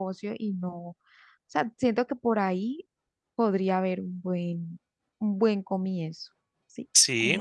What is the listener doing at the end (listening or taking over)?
taking over